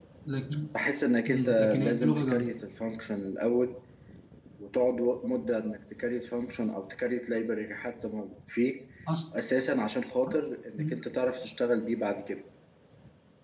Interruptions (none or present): present